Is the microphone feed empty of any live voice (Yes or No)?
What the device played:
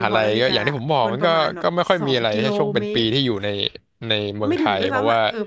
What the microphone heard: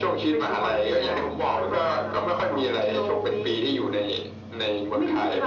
Yes